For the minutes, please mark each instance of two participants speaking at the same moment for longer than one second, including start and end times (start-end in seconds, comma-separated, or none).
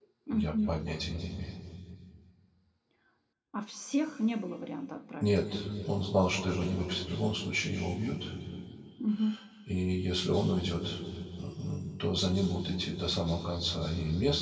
none